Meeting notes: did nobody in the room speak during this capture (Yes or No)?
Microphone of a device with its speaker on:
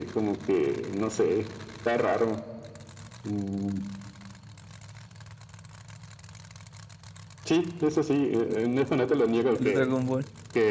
No